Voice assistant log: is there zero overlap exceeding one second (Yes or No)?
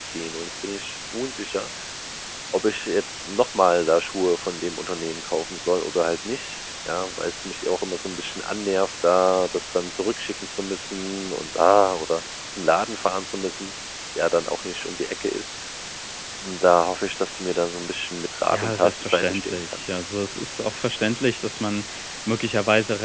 No